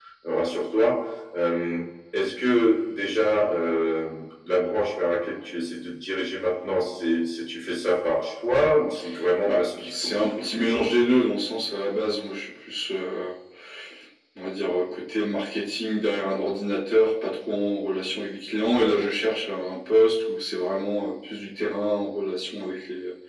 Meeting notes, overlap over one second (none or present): present